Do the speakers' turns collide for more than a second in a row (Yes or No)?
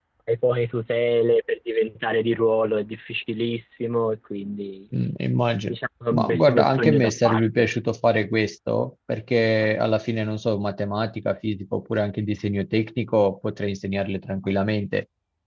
Yes